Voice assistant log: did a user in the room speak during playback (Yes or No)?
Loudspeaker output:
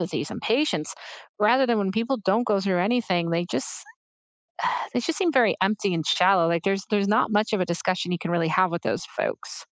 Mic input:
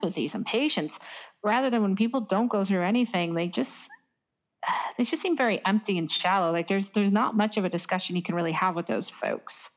No